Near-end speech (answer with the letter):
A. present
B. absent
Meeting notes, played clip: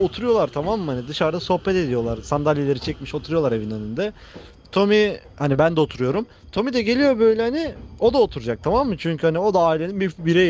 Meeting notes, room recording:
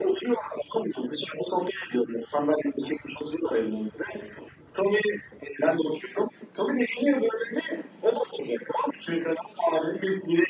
B